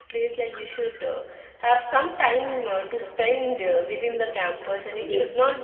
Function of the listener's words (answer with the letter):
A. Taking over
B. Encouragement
B